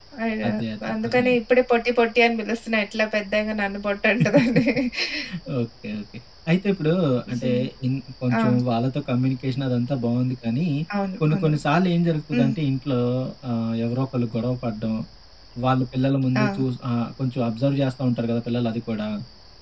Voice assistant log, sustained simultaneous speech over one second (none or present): none